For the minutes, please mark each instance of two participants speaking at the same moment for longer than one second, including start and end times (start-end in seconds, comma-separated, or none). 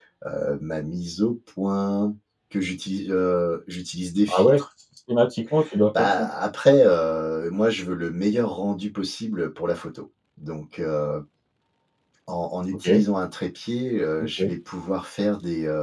none